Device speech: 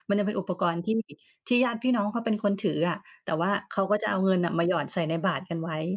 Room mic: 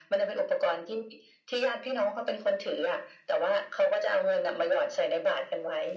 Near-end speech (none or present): none